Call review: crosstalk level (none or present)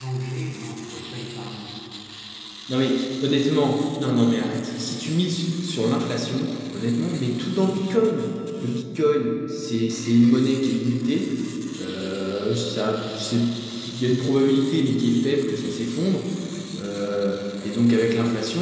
none